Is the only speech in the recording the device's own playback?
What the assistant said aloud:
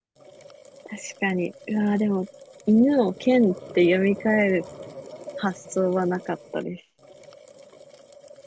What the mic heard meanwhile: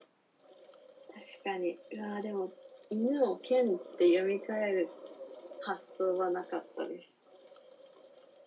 Yes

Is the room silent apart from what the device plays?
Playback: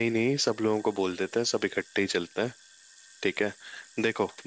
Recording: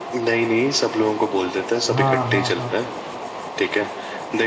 No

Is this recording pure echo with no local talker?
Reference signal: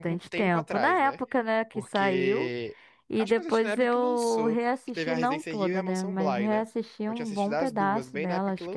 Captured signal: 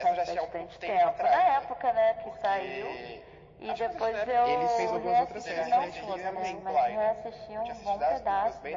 No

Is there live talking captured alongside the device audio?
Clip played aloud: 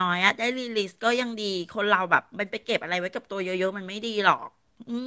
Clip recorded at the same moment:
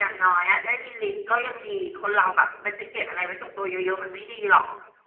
No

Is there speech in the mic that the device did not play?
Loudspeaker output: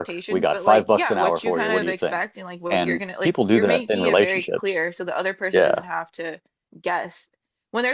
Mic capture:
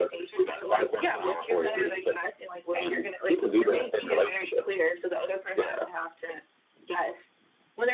No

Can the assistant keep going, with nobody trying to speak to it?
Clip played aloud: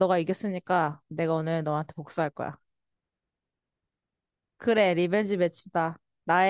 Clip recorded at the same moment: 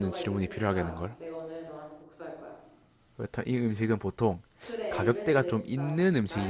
No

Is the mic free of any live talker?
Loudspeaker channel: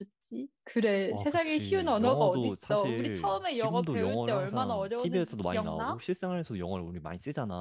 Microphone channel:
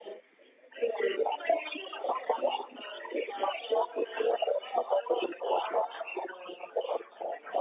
Yes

